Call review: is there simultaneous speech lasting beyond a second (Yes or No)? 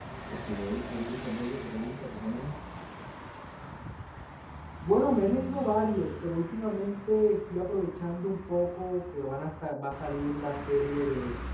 No